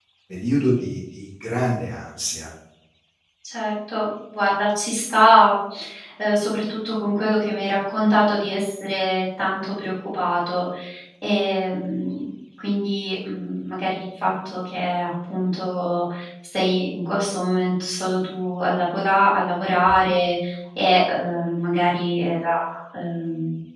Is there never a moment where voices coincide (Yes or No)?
Yes